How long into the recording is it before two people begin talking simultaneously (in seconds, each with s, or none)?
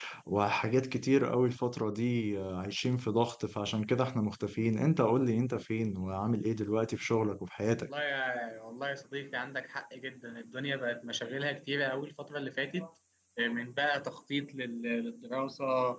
none